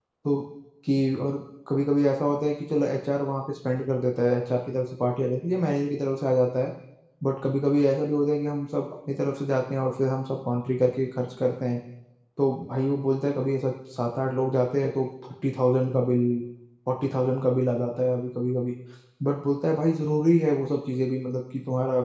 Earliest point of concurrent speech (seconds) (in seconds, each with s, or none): none